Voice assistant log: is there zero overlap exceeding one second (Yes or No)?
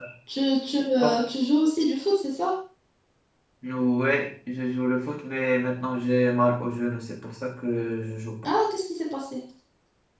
Yes